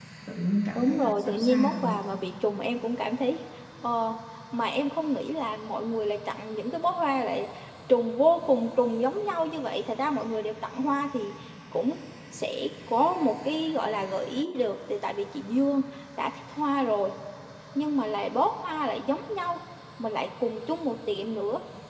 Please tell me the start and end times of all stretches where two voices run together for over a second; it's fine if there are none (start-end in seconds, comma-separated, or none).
0.8-2.0